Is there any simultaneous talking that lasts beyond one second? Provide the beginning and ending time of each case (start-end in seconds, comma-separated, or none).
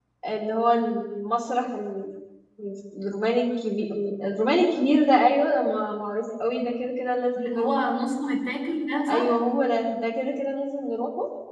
none